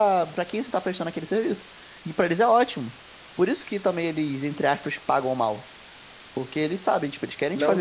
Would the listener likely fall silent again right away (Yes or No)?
No